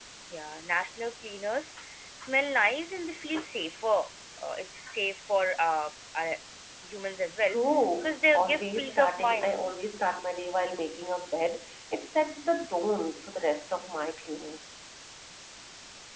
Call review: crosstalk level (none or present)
present